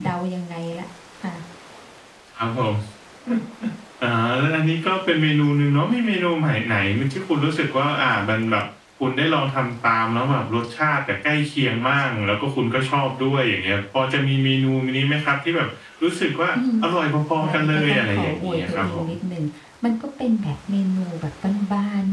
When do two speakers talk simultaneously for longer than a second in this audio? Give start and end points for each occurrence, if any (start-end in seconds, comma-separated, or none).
17.4-19.1